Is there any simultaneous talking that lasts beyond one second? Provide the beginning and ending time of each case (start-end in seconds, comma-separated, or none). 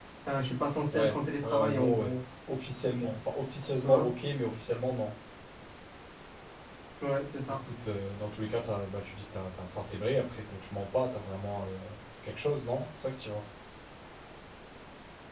0.9-2.2